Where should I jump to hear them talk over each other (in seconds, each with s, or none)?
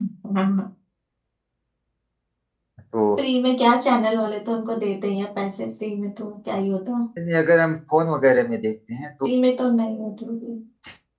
none